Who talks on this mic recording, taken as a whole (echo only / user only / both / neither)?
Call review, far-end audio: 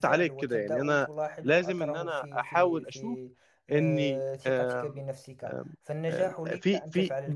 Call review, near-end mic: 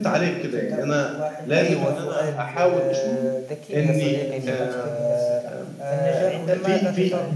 both